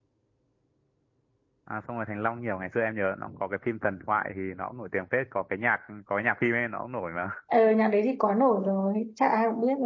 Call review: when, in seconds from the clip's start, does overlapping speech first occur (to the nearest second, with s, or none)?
none